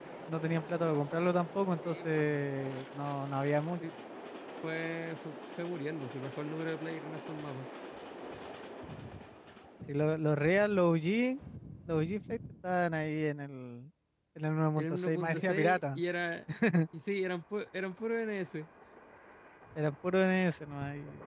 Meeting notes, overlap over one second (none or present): present